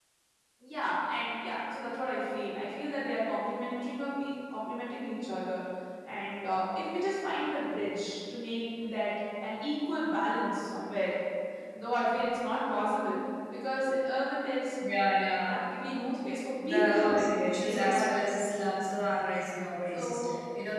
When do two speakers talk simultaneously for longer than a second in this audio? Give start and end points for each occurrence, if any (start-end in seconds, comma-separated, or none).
16.7-18.4